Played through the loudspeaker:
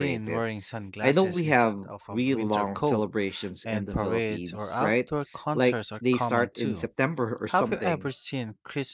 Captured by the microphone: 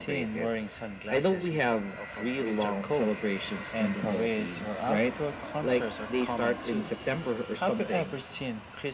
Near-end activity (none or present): none